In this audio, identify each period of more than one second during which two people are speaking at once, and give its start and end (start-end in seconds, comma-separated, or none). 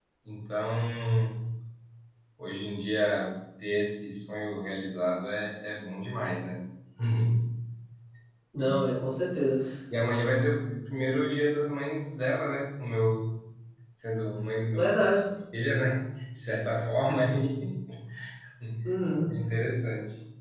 none